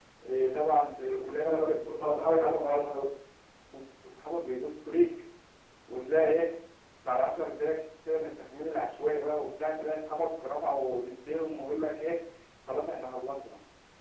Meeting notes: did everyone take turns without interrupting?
No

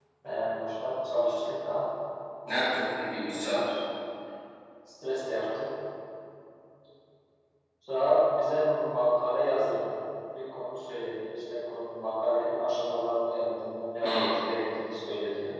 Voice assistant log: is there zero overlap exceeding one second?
Yes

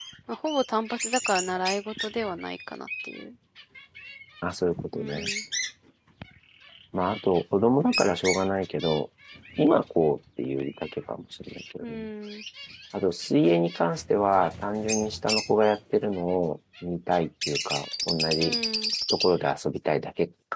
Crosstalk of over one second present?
No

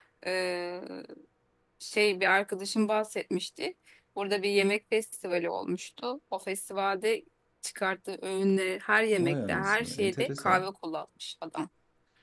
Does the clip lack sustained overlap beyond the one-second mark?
No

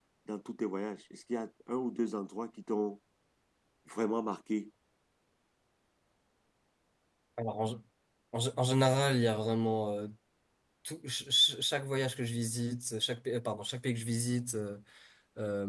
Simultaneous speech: No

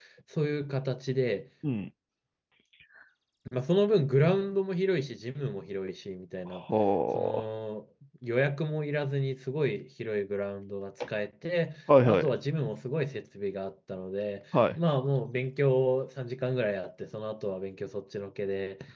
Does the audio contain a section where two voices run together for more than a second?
No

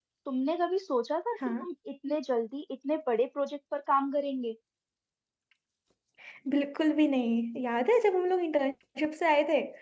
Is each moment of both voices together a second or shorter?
Yes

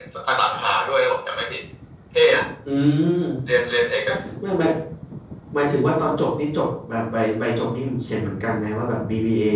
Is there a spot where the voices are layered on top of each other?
No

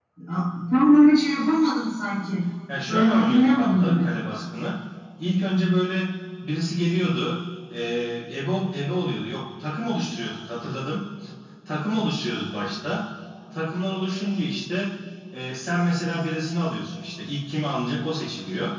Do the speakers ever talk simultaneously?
Yes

